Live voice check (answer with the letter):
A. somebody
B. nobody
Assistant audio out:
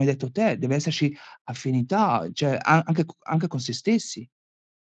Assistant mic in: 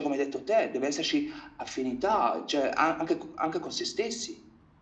B